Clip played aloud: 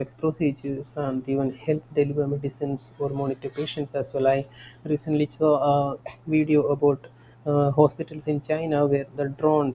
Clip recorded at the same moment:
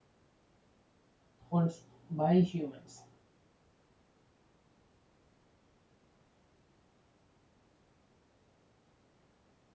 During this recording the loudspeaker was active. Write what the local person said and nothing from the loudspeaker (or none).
once by humans.